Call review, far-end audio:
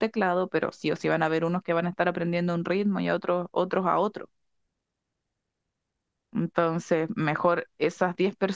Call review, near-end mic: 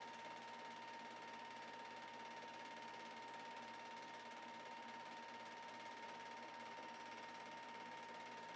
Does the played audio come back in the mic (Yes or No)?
No